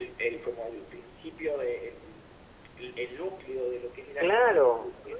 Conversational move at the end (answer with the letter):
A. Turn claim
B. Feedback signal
A